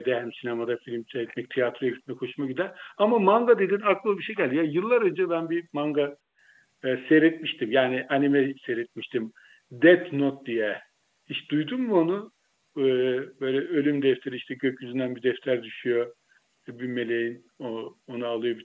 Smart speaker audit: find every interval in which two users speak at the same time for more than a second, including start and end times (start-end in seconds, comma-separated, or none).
none